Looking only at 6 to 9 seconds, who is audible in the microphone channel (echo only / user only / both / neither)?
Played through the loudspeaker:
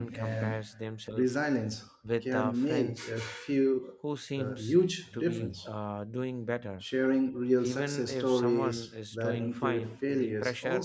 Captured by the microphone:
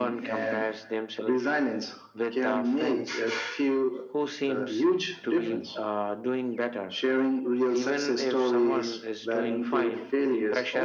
echo only